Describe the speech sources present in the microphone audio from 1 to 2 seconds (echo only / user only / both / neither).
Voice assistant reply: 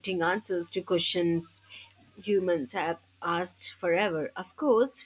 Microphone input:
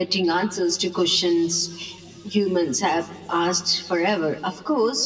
echo only